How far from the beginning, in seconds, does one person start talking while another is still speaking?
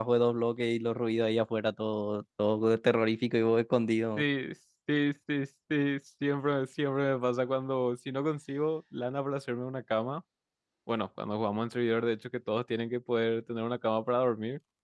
none

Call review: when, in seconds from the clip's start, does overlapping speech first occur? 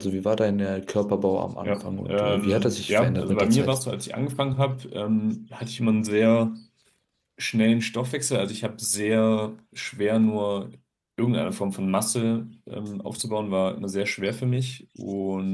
1.6 s

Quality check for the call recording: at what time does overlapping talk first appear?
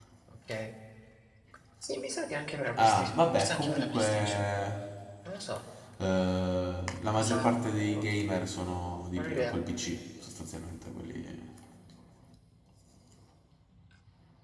2.8 s

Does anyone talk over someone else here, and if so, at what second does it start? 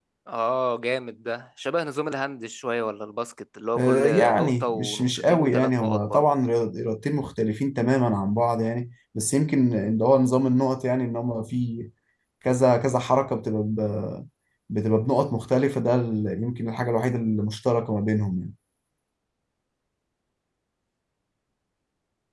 3.8 s

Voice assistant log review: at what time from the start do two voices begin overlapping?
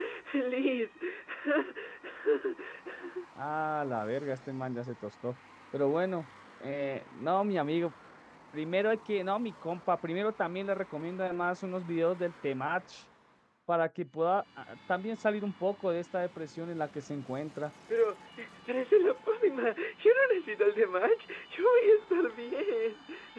none

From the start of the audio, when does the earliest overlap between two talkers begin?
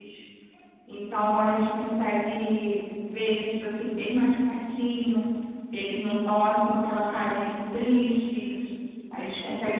none

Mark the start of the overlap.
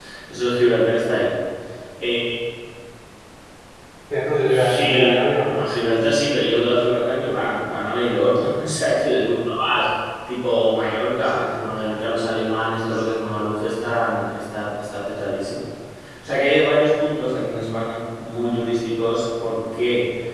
4.5 s

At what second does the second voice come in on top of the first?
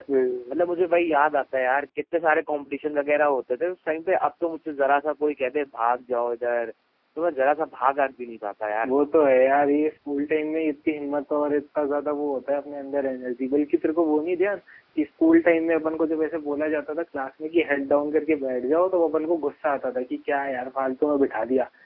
none

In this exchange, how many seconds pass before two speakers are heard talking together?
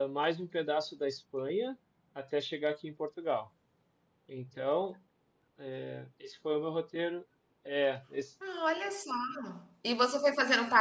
none

